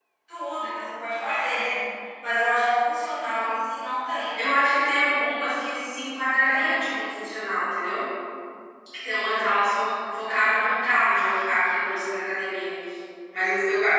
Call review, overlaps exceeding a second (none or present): none